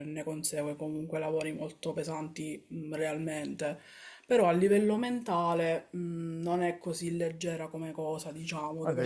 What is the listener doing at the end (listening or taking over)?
taking over